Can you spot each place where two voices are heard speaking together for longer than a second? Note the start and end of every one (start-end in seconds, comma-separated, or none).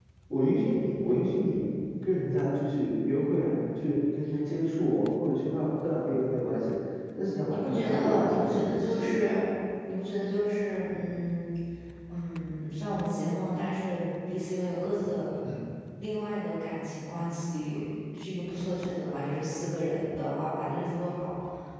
7.5-9.2